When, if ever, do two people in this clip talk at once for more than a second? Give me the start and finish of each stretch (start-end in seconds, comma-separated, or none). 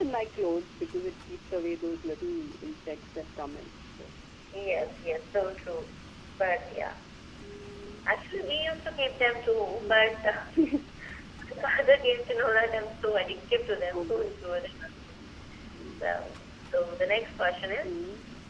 none